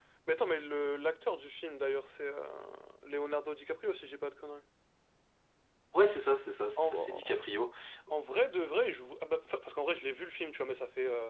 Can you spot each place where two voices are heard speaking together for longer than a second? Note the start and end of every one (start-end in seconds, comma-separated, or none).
none